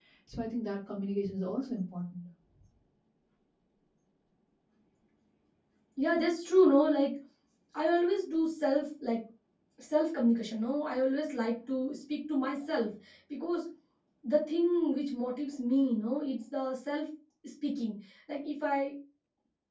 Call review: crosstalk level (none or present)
none